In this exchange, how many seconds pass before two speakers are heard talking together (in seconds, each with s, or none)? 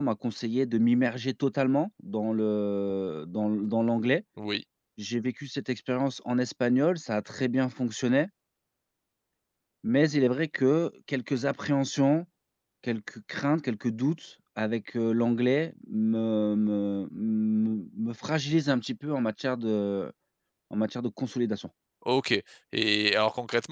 none